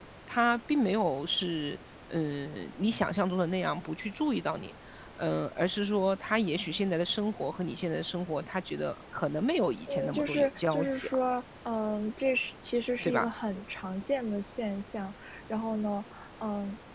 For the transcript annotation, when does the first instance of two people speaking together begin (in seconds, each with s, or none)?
9.9 s